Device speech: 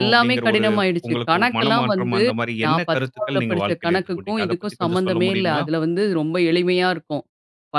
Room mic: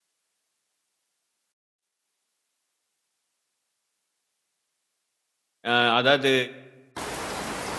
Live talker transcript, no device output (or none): அ அதாவது